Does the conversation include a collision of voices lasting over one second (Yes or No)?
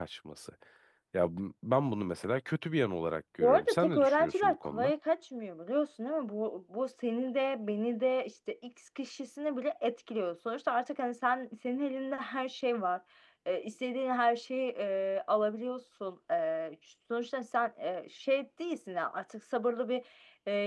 Yes